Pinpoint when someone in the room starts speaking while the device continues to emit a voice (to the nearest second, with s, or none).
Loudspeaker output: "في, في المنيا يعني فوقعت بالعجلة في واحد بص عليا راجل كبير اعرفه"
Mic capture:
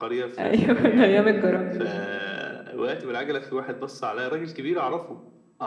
0 s